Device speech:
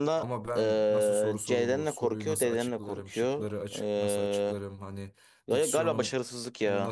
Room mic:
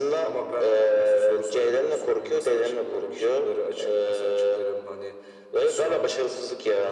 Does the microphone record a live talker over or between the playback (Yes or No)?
No